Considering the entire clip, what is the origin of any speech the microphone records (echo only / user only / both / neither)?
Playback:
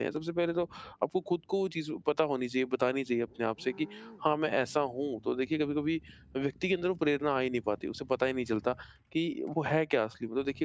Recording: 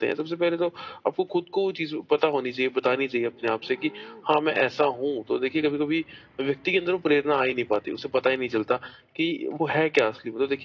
echo only